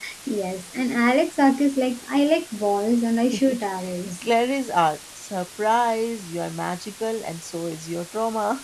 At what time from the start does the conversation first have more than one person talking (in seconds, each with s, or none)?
none